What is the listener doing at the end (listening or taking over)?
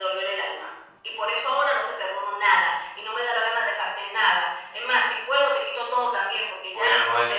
taking over